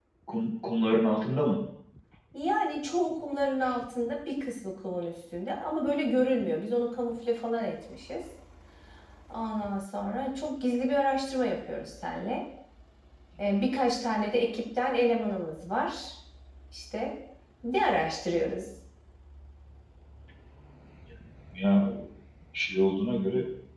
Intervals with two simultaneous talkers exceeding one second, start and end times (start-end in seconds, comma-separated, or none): none